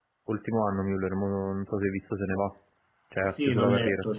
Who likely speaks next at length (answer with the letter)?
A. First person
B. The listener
B